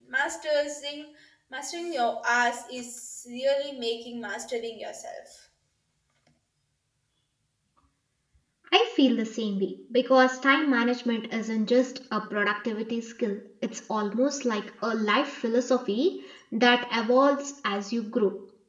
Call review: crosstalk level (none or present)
none